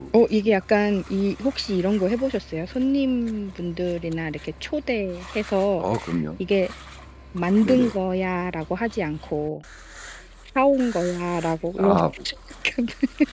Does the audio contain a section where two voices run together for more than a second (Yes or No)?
No